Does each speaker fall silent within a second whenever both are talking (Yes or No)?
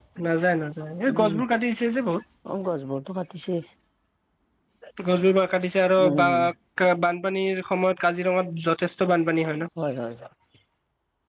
Yes